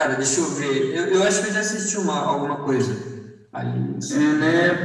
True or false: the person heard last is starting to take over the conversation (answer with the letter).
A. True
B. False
A